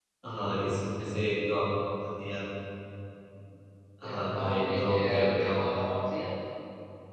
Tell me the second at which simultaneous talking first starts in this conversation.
4.0 s

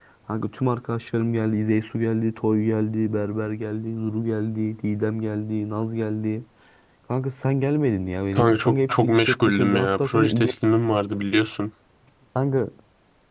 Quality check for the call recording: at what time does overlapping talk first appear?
8.3 s

